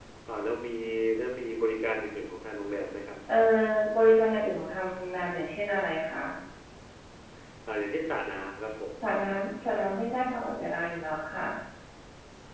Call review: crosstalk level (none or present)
none